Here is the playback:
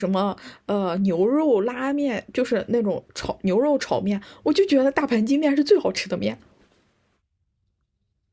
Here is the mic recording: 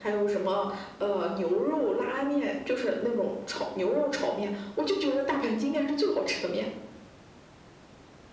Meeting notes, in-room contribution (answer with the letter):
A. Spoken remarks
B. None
B